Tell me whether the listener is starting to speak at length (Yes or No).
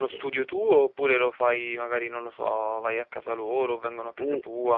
Yes